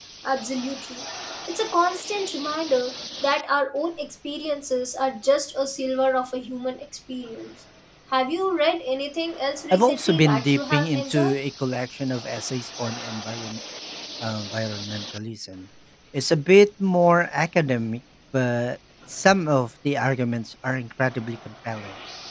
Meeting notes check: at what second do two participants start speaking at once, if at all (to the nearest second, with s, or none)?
10 s